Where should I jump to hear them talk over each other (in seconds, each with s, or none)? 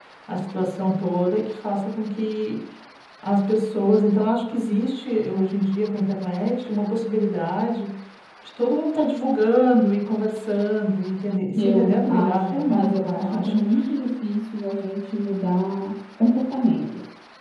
11.6 s